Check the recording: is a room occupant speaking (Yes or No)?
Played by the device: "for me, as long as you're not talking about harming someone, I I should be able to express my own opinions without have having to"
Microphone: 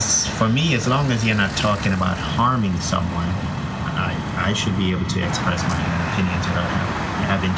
No